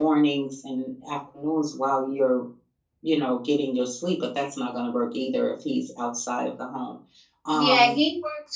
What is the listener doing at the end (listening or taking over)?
taking over